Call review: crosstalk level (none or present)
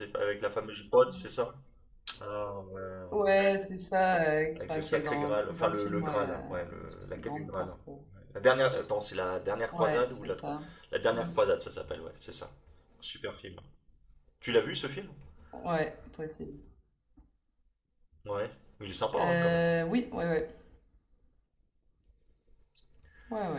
present